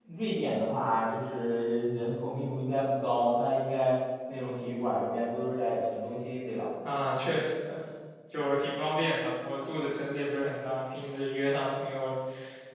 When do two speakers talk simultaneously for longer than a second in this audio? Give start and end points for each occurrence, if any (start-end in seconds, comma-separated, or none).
none